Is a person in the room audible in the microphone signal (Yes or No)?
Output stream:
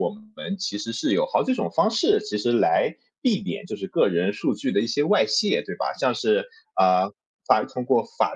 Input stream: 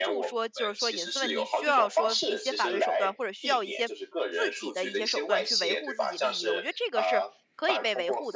Yes